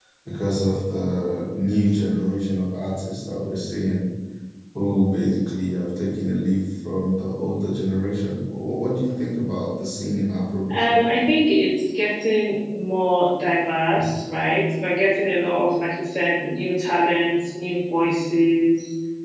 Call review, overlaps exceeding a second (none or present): none